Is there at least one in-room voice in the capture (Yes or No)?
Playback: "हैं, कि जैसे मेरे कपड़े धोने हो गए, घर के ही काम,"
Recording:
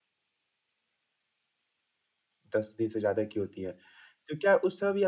Yes